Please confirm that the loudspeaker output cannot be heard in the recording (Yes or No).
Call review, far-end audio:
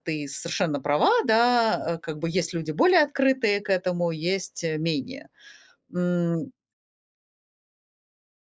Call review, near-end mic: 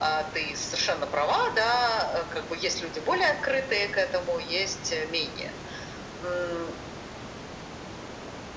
No